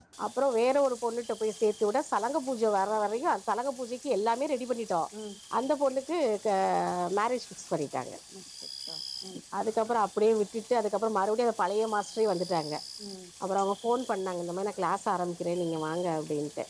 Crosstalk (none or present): none